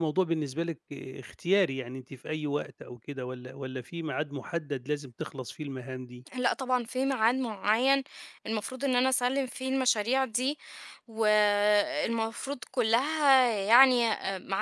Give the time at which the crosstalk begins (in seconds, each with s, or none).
none